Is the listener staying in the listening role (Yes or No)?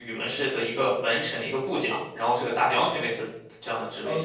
No